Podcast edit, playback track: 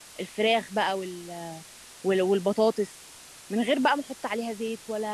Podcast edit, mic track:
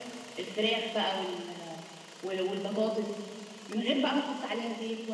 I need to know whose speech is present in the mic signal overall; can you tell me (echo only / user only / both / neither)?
echo only